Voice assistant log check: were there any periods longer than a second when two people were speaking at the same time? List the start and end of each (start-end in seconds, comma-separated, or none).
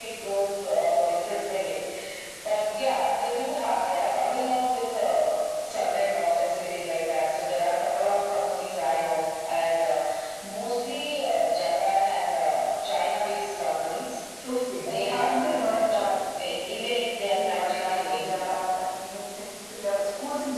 14.8-16.1, 17.2-18.5